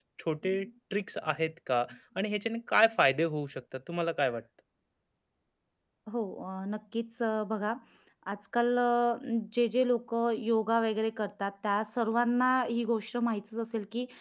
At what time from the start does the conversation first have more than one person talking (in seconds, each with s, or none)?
none